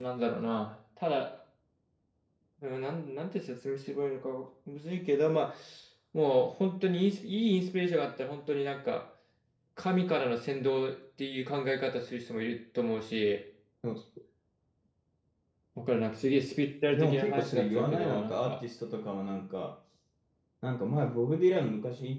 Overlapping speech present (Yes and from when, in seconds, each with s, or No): Yes, from 16.9 s